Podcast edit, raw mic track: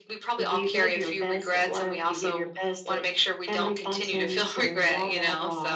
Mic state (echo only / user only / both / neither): echo only